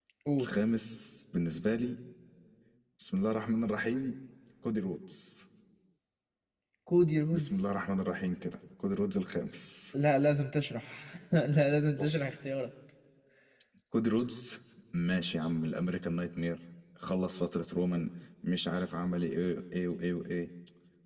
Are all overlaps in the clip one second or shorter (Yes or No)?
Yes